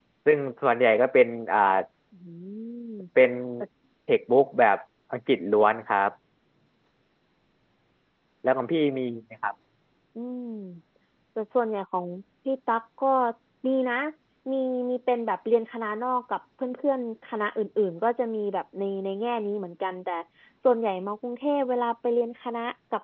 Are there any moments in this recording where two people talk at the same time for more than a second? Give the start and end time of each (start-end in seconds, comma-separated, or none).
none